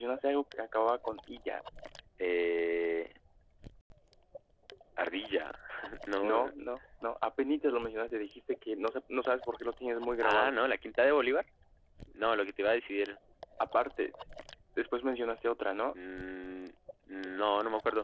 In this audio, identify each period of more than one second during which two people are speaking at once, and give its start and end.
none

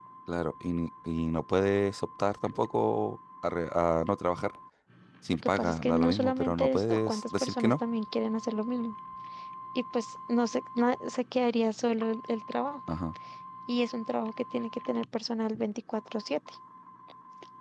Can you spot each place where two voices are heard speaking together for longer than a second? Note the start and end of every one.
5.4-7.7

